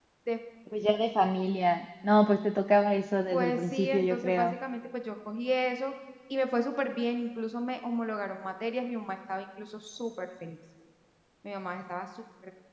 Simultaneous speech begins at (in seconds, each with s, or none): 3.3 s